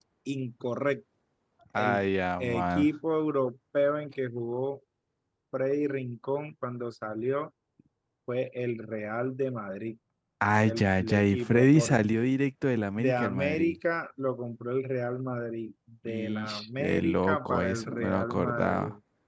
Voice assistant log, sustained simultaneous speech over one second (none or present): present